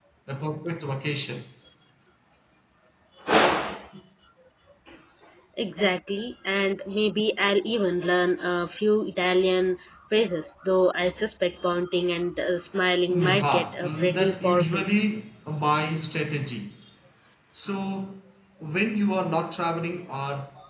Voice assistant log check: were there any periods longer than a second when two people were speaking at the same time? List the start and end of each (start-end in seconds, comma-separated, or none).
13.1-14.9